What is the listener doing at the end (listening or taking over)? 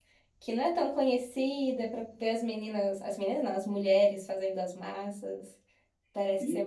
taking over